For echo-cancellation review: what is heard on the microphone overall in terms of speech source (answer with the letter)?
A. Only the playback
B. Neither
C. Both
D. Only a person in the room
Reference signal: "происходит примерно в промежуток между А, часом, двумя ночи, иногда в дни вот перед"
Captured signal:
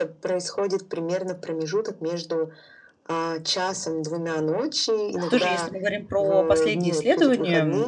C